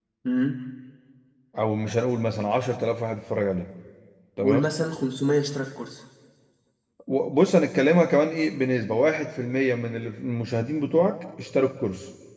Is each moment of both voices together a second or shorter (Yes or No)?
Yes